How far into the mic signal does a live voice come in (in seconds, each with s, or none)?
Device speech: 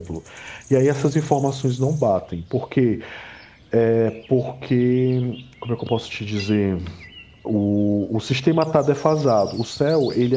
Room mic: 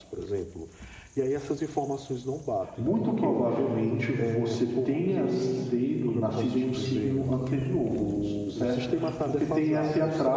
2.8 s